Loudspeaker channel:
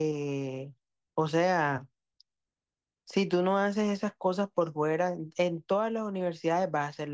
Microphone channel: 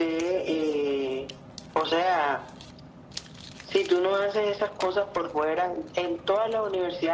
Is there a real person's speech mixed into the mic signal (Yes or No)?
No